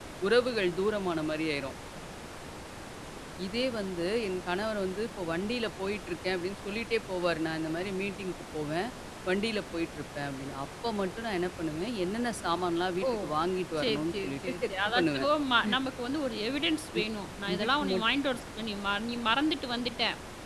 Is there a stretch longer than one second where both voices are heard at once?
Yes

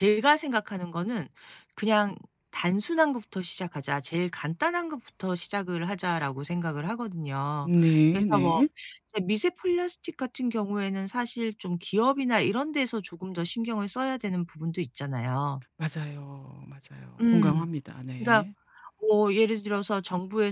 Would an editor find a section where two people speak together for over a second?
No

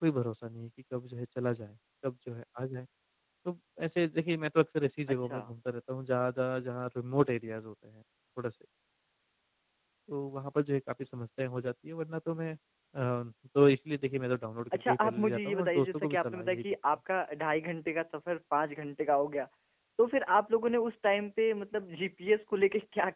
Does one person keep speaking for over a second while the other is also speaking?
Yes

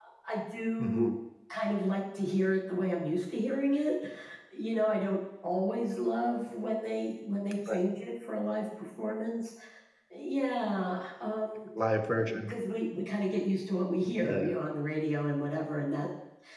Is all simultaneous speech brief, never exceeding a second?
Yes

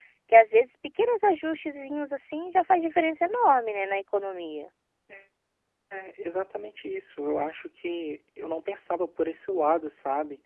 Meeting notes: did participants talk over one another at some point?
No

